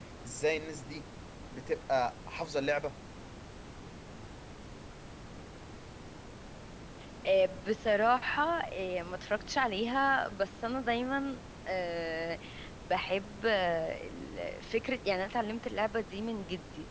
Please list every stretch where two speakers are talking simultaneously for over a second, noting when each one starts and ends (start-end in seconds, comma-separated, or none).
none